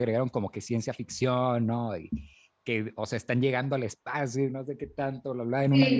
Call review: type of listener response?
taking over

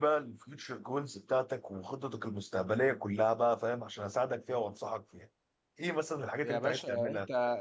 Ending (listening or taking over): taking over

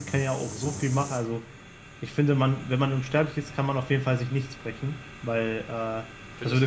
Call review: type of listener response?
listening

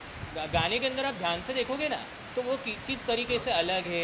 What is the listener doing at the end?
listening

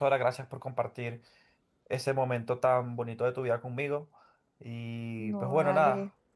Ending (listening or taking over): listening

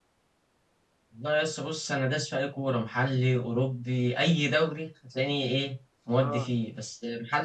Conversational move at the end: listening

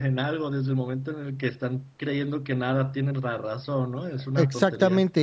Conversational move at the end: taking over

